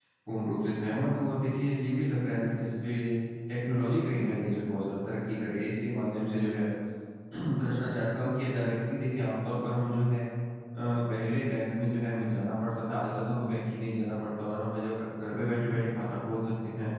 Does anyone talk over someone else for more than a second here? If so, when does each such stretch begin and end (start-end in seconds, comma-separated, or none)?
none